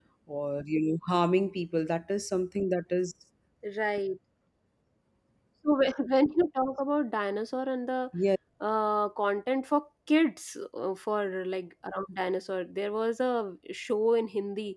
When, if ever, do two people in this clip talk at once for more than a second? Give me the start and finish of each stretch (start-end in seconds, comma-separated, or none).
none